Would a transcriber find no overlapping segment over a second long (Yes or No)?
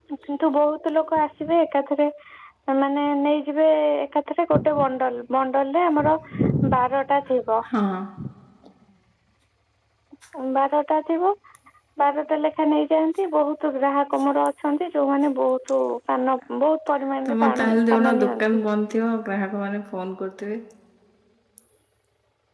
No